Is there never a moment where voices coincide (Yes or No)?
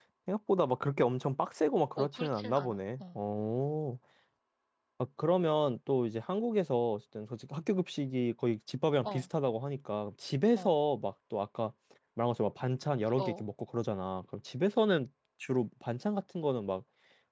No